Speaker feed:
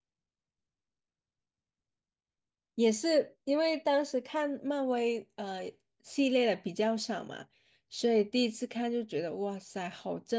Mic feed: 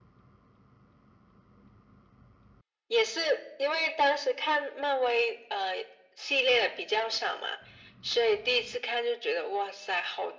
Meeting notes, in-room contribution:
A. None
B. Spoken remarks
A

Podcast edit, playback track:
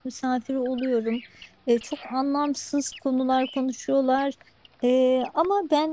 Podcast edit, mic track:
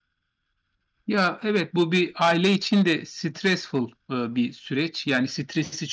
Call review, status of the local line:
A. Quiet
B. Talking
B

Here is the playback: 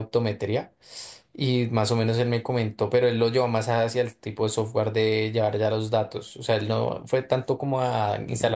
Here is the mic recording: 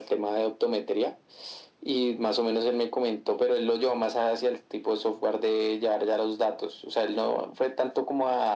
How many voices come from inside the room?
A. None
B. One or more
A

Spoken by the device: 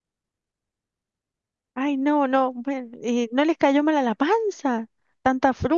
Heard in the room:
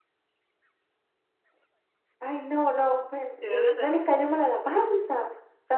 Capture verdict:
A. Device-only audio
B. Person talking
B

